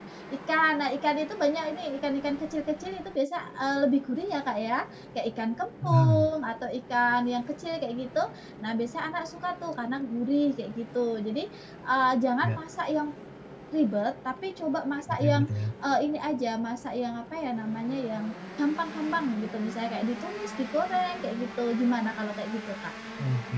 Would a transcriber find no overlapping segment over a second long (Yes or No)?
Yes